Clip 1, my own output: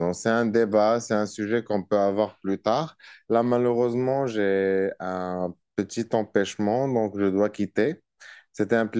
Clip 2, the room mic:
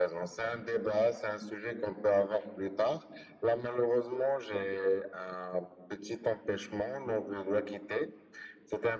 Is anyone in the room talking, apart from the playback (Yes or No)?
No